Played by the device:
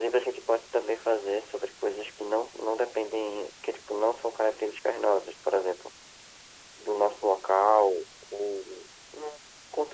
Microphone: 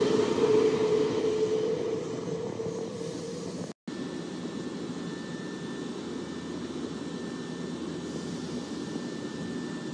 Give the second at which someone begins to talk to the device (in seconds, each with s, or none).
none